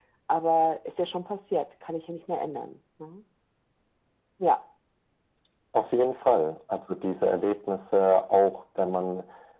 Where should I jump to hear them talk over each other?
none

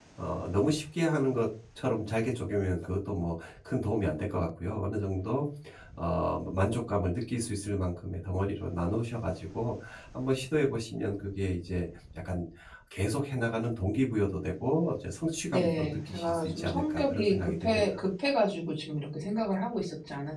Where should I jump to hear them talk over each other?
15.5 s

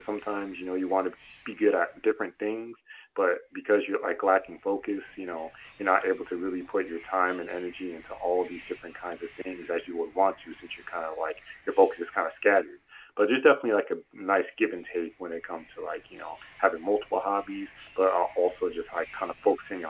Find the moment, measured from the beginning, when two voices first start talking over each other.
none

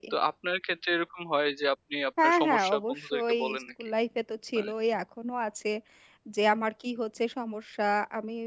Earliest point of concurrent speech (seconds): 2.2 s

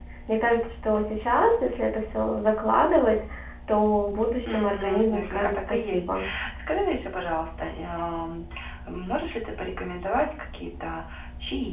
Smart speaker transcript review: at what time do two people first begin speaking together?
4.5 s

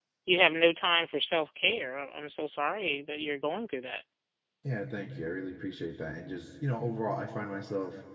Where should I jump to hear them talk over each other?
none

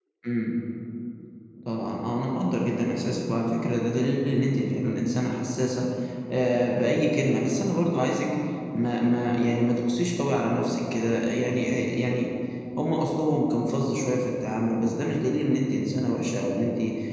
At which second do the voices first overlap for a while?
none

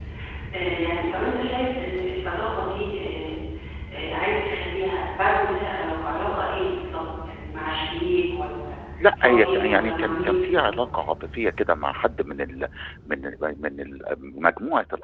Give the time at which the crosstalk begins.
9.1 s

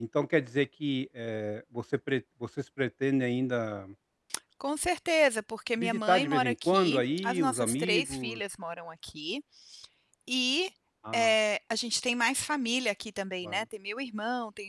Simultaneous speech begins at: 5.8 s

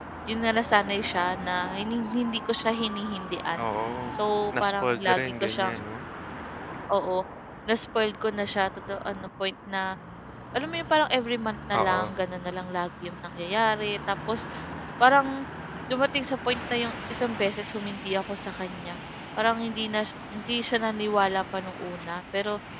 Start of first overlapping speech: 4.6 s

